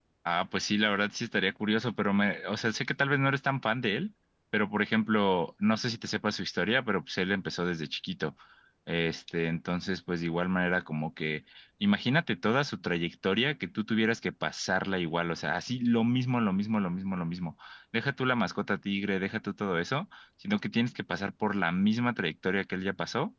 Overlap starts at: none

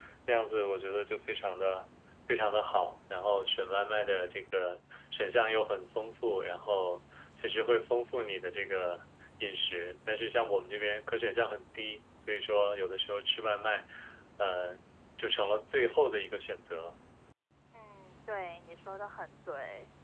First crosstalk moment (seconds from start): none

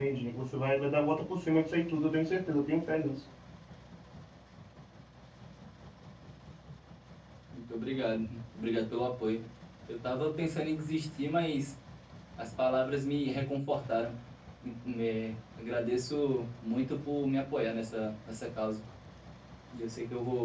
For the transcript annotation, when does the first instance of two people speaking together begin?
none

